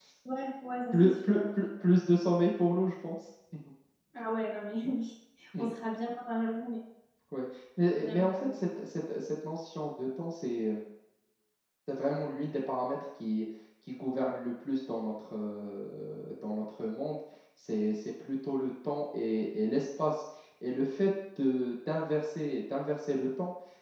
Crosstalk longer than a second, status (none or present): none